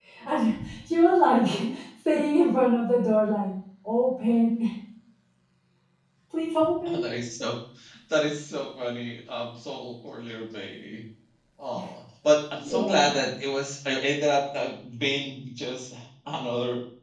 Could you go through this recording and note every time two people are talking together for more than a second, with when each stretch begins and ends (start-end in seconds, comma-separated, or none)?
none